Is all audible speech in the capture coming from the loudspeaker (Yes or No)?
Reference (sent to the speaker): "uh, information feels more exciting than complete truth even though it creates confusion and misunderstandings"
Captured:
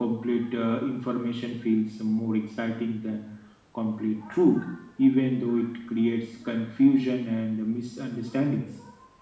Yes